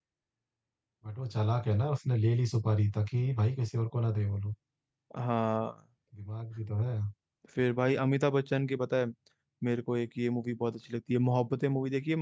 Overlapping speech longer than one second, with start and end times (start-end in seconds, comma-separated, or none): none